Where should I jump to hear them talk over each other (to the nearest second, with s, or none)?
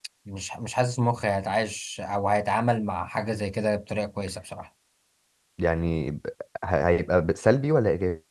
none